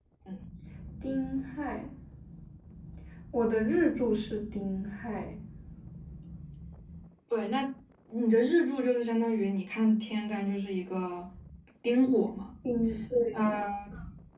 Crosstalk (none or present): none